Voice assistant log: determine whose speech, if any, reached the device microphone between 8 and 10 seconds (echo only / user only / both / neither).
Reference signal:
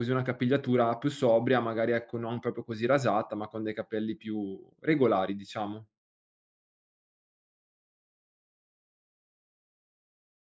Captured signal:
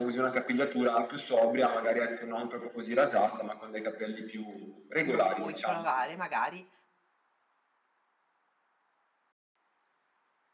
neither